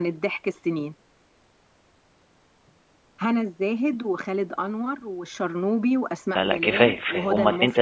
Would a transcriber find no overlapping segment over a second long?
No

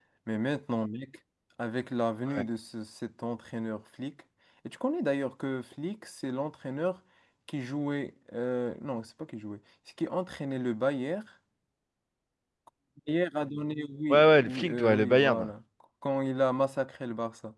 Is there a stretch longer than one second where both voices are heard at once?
Yes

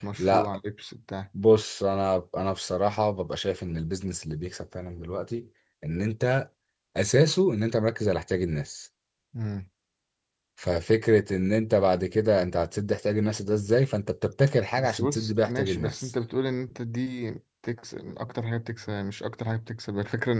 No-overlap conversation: No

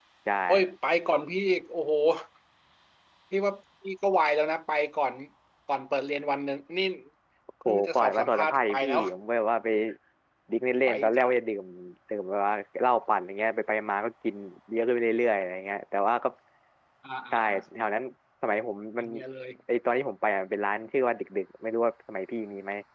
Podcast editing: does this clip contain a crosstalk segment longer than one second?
Yes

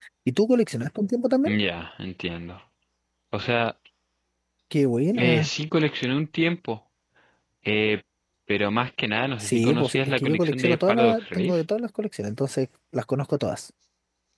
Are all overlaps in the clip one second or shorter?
No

